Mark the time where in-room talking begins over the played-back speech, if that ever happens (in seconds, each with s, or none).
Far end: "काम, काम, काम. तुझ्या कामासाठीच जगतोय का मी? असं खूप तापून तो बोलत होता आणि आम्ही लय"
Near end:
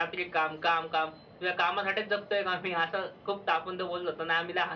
none